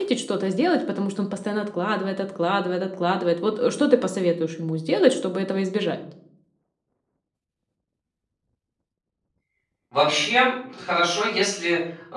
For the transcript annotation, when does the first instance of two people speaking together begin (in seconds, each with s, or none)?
none